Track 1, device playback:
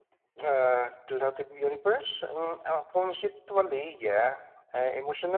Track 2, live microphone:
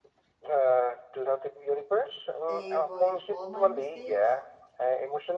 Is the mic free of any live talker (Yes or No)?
No